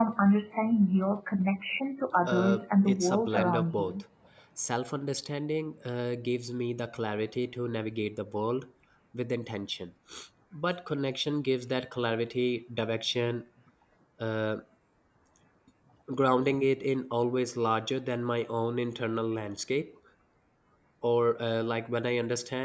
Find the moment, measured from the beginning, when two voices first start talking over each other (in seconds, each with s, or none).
2.3 s